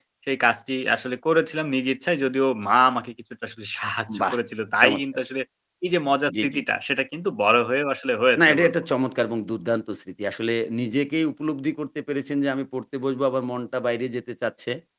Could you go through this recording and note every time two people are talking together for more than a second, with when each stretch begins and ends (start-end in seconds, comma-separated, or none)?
none